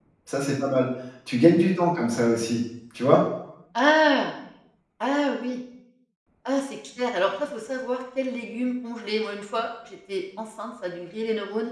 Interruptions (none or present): none